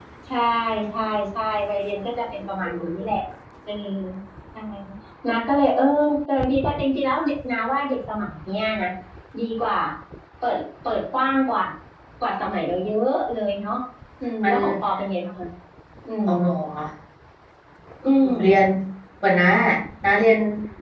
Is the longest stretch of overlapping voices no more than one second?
Yes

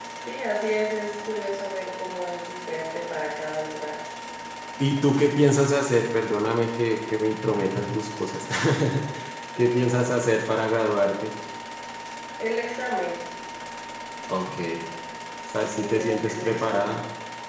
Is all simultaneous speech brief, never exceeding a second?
No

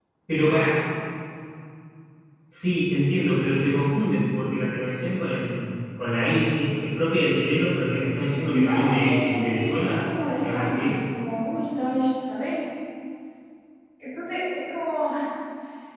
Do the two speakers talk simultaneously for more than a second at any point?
Yes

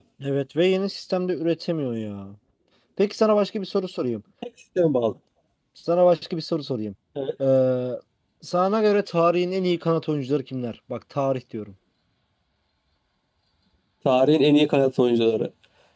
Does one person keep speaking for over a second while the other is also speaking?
No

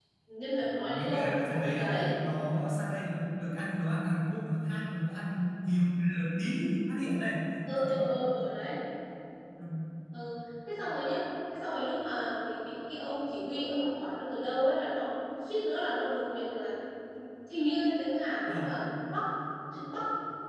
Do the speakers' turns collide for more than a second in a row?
Yes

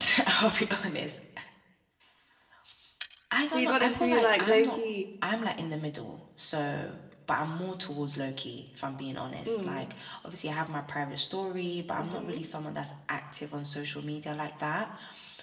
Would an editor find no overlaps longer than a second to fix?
No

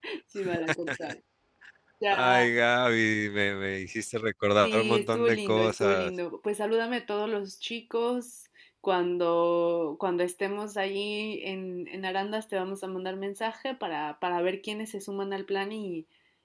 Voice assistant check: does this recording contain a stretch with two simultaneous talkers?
Yes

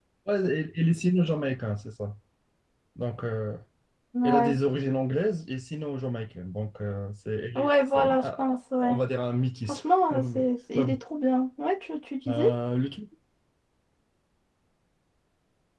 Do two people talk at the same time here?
Yes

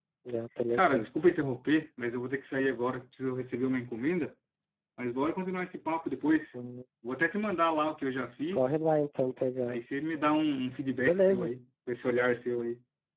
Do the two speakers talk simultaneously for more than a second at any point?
No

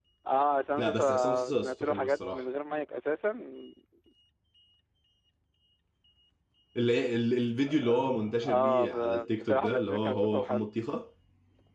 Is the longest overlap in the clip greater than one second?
Yes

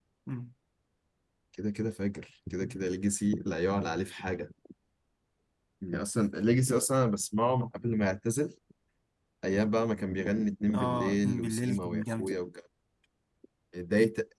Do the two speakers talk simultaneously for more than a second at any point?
Yes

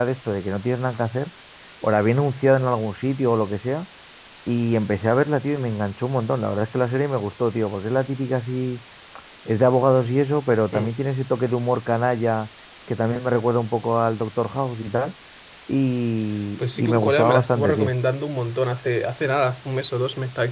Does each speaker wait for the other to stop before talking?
No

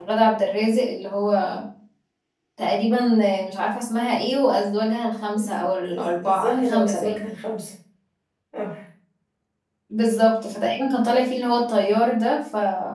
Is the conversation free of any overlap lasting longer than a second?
No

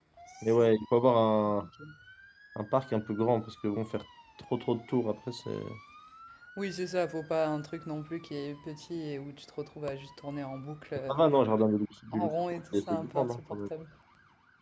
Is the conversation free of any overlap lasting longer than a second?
No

